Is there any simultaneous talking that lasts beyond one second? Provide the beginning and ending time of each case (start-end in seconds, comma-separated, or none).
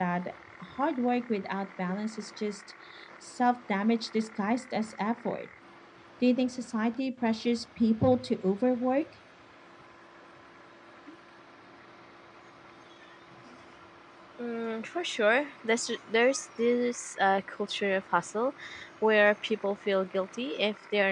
none